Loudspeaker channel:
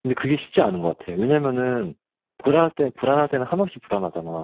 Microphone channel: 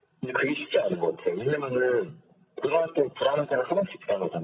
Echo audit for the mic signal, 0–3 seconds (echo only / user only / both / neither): echo only